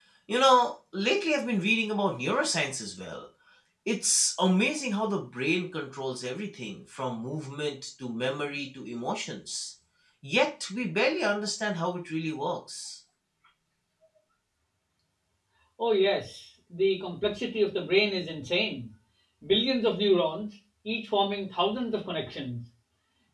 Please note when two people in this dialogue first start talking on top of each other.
none

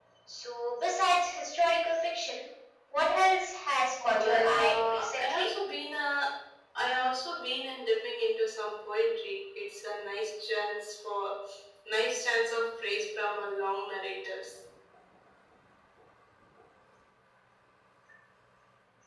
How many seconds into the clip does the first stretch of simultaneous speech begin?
4 s

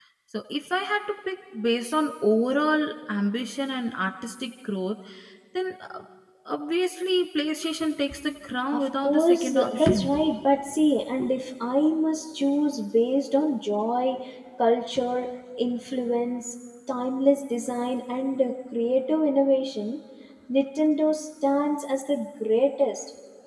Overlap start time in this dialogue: 9 s

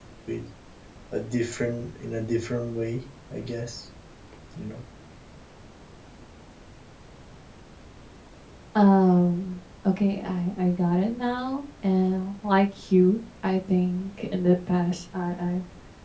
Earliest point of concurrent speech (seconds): none

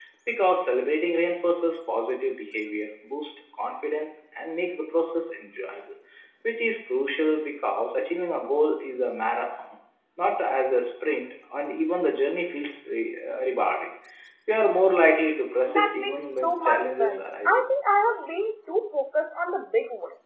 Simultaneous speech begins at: 16 s

